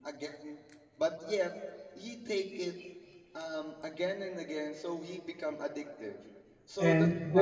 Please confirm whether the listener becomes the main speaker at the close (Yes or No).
Yes